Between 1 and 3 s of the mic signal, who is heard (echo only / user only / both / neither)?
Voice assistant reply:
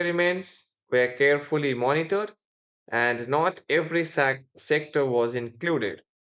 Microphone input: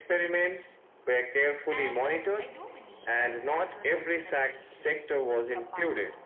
both